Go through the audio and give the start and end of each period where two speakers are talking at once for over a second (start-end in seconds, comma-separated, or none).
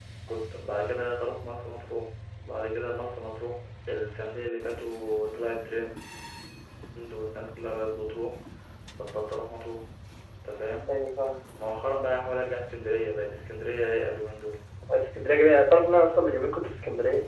none